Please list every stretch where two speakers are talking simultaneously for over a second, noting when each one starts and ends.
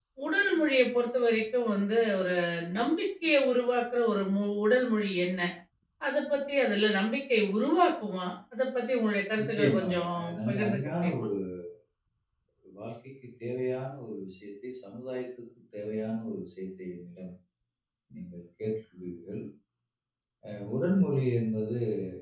9.4-11.3

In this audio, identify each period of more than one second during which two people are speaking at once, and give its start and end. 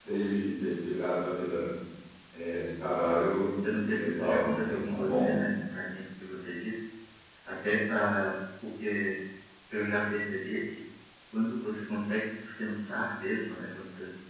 3.6-5.3

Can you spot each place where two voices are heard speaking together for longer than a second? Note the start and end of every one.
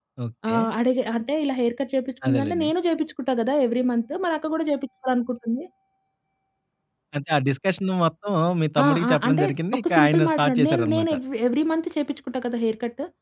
8.8-11.1

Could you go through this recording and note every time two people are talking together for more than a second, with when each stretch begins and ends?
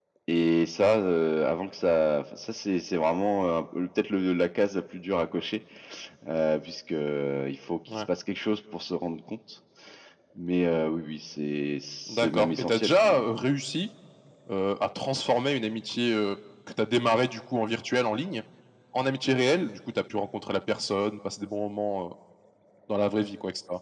12.1-13.3

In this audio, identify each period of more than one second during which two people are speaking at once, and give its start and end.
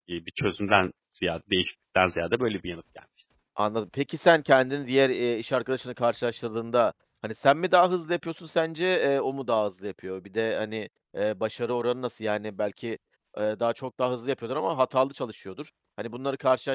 none

